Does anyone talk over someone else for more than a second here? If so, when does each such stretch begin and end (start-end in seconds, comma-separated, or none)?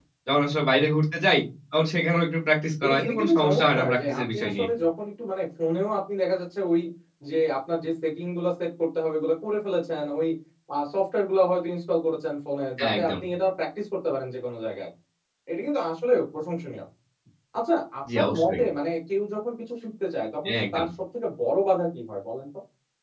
2.8-4.7